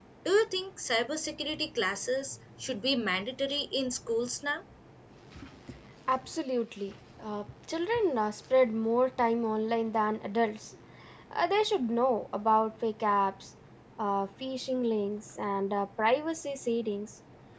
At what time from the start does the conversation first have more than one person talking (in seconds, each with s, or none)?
none